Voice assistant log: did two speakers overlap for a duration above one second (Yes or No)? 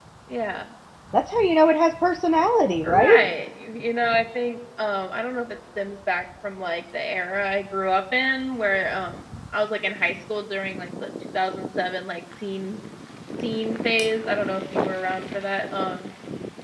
No